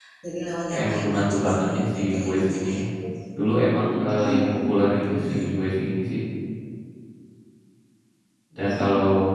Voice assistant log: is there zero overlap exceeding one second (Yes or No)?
No